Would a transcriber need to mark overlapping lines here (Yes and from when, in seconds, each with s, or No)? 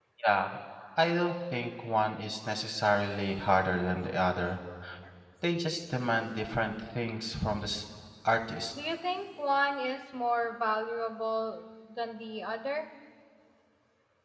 No